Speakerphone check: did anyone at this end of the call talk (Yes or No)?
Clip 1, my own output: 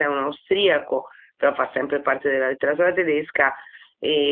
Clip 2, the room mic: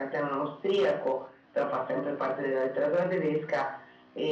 No